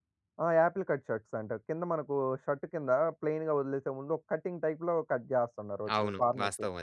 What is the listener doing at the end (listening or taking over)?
taking over